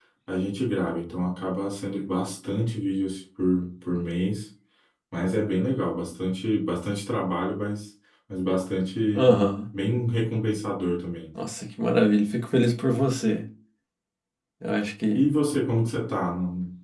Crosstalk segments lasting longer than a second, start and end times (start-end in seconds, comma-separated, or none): none